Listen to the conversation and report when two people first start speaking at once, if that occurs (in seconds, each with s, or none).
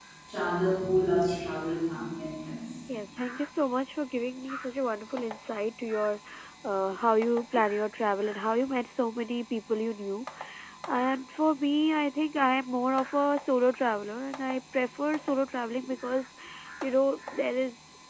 none